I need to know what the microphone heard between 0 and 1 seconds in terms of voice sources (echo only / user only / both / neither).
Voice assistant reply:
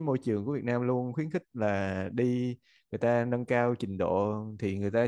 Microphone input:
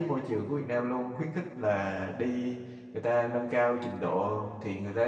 echo only